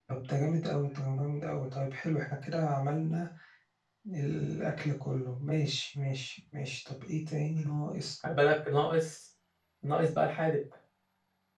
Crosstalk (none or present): none